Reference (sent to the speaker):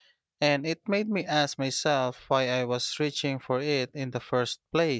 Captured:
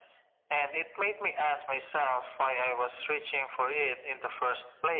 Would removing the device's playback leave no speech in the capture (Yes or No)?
Yes